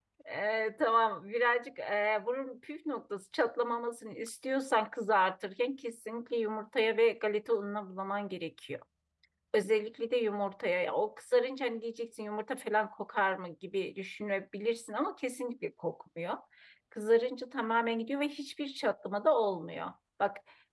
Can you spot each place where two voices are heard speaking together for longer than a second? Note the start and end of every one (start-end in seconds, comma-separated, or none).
none